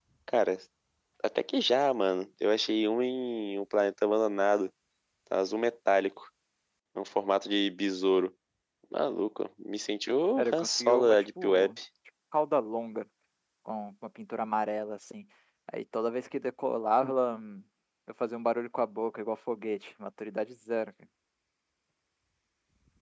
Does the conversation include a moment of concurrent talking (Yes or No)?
Yes